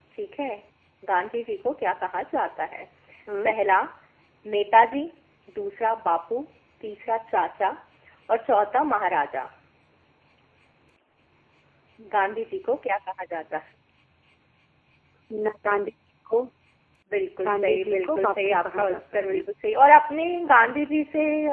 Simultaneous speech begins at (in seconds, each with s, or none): 17.4 s